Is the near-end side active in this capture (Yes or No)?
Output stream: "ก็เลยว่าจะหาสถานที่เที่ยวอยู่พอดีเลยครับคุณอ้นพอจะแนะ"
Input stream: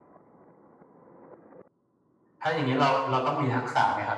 Yes